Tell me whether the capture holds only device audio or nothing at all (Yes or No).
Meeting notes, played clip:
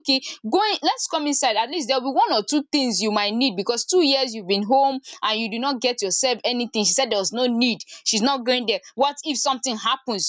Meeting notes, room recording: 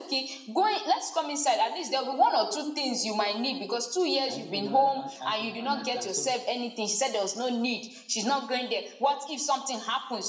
No